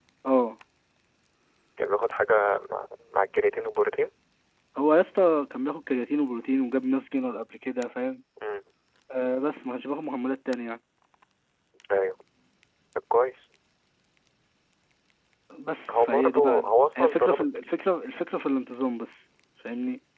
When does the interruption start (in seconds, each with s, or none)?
15.9 s